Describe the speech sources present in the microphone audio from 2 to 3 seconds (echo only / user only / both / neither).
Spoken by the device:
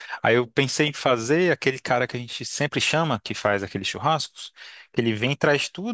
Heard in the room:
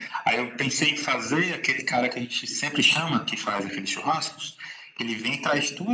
echo only